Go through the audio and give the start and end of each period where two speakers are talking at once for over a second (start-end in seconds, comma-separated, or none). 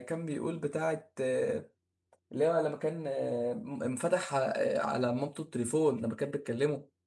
none